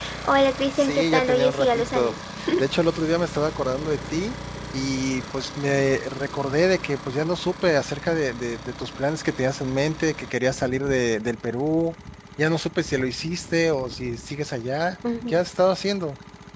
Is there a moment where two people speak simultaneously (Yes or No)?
Yes